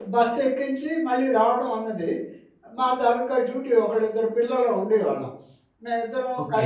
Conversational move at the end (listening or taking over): taking over